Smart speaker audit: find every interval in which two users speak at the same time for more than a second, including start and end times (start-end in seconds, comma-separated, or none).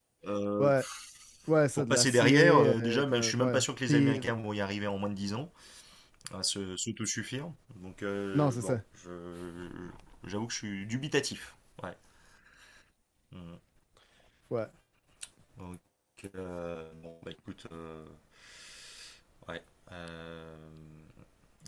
1.8-4.2